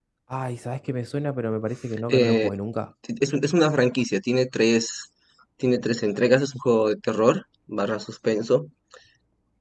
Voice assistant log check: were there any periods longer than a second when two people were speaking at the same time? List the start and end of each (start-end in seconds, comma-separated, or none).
none